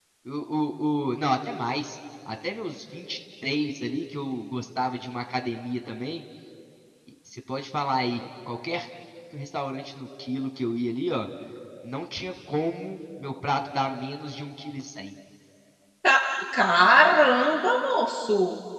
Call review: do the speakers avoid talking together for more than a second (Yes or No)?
Yes